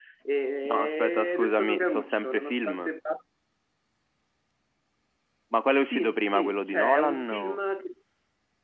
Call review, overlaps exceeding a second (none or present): present